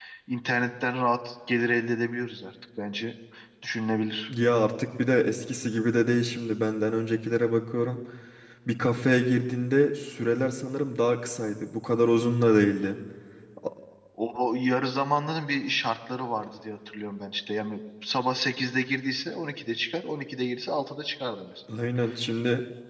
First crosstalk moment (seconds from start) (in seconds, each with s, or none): none